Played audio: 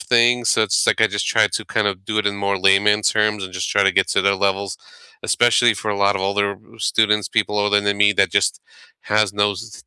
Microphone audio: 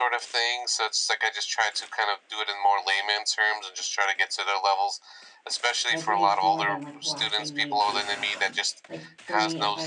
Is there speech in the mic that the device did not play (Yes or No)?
Yes